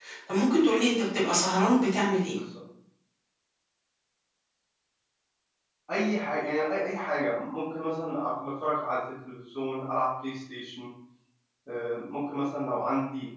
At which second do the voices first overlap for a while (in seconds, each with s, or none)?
none